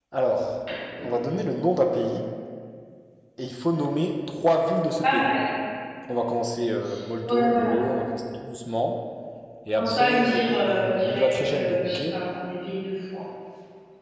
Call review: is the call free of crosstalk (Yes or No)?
No